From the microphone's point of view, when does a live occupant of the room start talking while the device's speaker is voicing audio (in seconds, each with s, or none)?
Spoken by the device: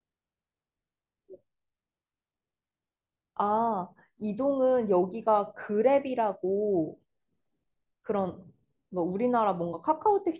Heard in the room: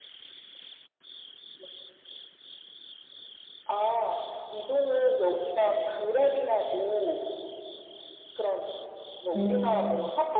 9.3 s